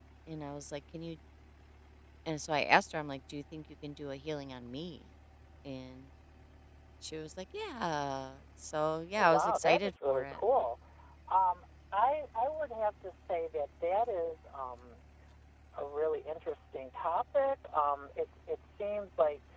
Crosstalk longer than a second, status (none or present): present